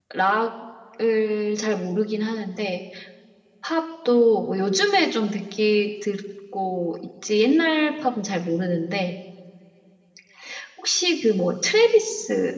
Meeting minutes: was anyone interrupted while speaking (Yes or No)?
No